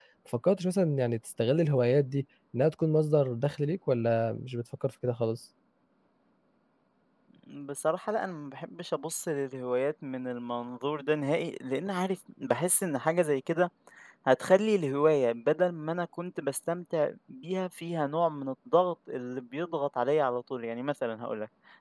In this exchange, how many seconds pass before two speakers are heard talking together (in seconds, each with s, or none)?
none